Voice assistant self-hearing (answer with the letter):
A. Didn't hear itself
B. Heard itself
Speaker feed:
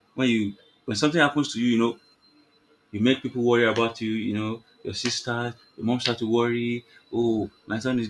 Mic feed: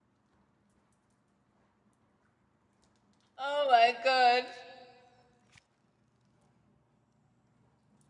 A